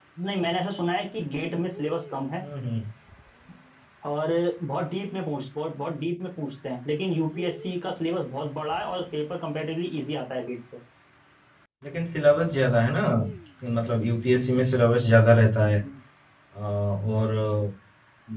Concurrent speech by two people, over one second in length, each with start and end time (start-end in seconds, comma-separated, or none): none